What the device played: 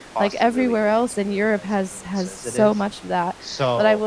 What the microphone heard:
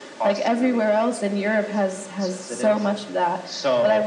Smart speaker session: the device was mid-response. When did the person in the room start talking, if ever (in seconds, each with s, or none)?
none